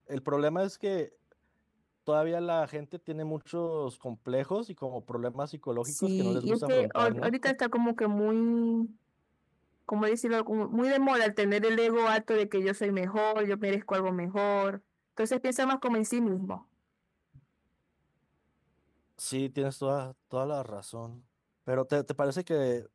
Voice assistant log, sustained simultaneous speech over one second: present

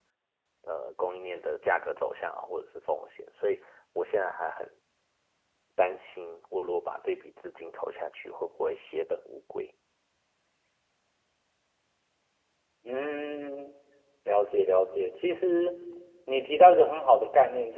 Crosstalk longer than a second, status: none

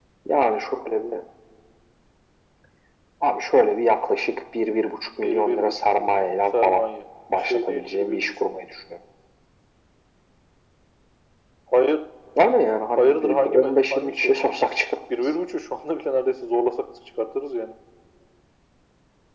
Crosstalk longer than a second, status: present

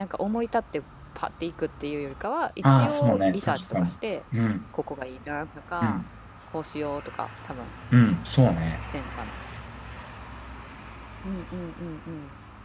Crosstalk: present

